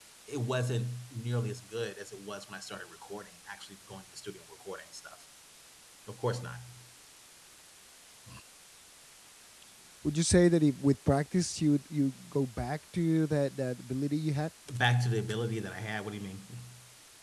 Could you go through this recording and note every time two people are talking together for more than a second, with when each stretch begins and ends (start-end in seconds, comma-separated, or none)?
none